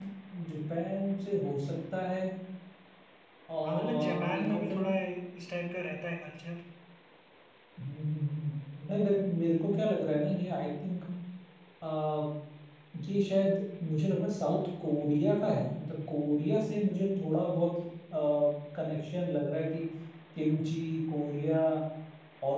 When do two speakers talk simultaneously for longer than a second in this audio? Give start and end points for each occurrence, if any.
3.6-4.8

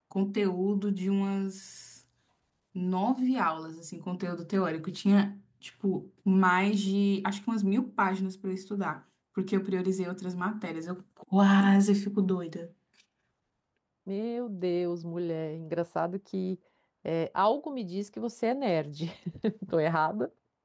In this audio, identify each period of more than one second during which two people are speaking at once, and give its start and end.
none

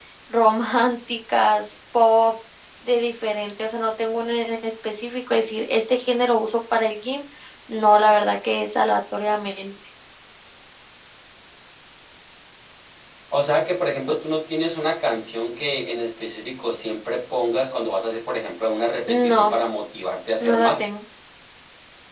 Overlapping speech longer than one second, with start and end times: none

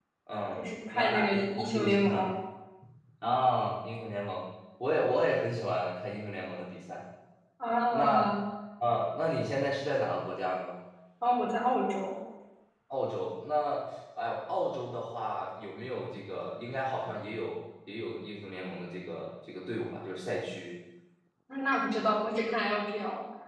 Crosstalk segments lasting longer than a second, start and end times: 0.6-2.3

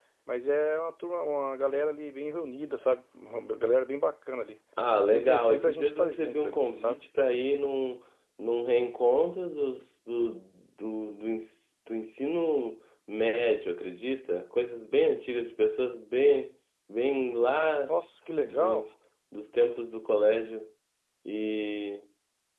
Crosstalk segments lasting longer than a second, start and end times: 5.1-7.0

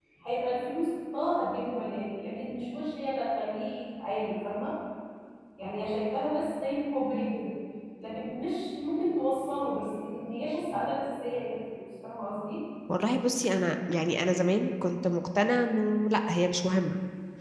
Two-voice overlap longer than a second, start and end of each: none

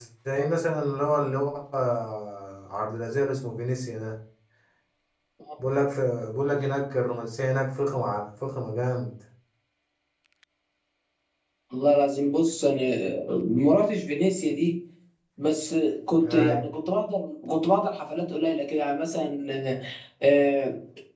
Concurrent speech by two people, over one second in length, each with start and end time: none

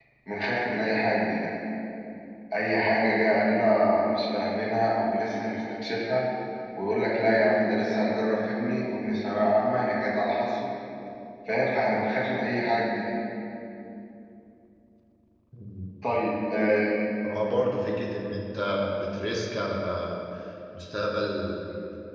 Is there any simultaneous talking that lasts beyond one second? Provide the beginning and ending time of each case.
none

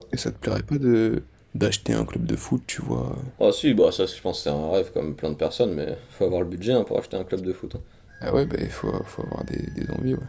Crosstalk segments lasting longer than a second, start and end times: none

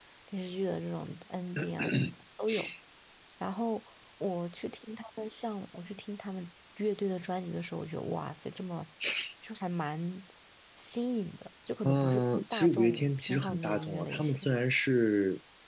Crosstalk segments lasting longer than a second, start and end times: 11.8-14.5

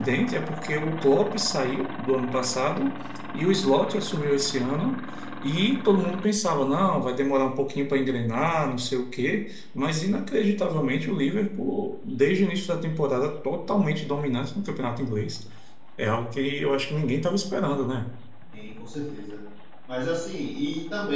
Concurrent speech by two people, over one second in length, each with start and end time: none

